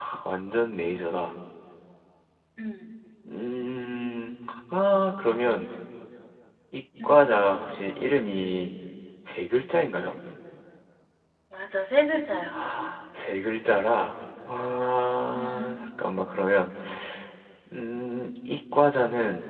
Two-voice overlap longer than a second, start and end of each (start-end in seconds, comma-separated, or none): none